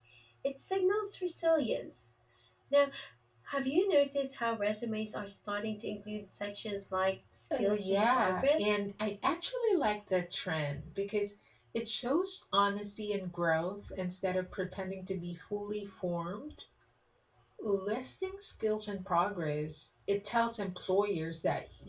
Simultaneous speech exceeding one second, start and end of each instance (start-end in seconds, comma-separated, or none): 7.6-8.8